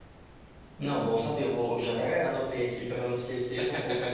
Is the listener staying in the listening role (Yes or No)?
Yes